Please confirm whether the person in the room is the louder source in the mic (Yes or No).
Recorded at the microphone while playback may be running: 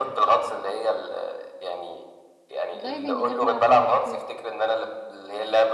No